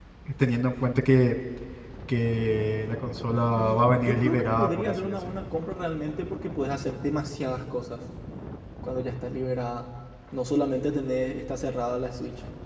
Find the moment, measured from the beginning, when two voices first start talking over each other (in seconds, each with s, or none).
3.6 s